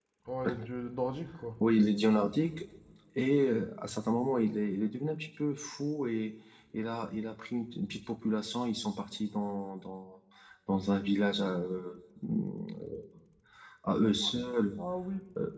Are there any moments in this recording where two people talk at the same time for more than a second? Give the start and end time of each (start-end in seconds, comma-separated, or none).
none